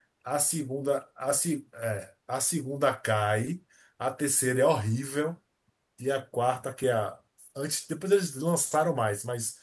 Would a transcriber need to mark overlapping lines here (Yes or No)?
No